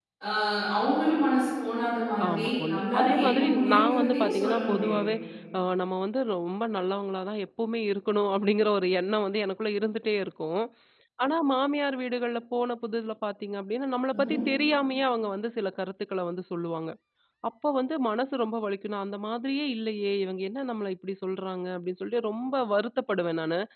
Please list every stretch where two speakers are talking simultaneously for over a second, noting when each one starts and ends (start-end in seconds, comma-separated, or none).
2.3-5.0